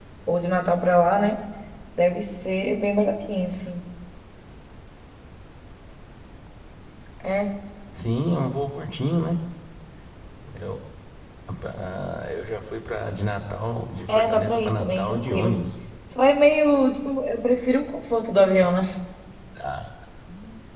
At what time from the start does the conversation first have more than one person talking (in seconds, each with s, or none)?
14.1 s